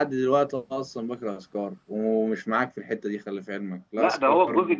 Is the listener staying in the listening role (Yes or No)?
No